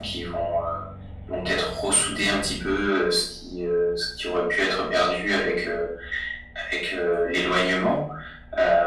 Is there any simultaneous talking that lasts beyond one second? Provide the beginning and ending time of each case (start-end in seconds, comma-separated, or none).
none